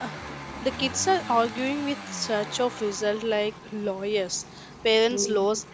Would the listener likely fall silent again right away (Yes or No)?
Yes